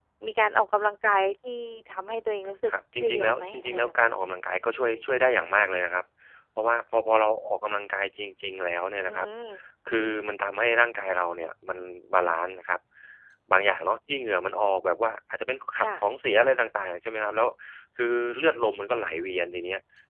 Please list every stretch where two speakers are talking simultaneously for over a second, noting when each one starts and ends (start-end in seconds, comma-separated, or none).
3.0-4.2